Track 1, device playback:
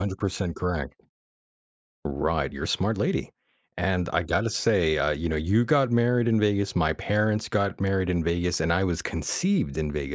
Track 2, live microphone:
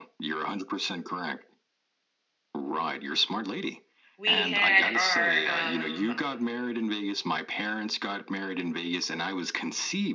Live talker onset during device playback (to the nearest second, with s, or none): 4 s